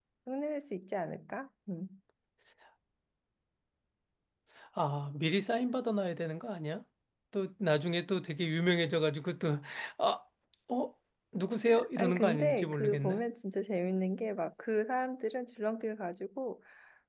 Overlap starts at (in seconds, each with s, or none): 12.0 s